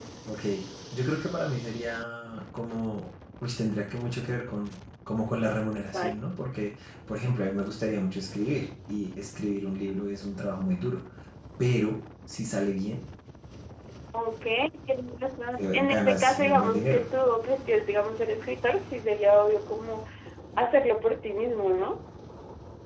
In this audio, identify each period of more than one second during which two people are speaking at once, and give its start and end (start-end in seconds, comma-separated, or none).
15.6-17.0